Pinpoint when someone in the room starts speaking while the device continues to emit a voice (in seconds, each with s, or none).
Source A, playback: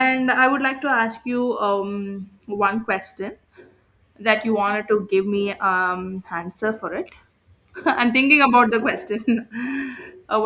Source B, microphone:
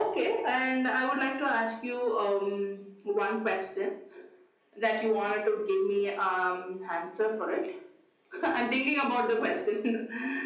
none